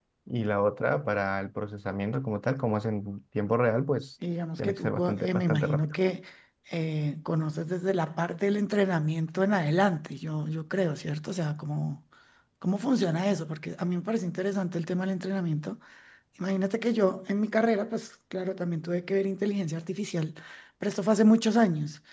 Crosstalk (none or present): present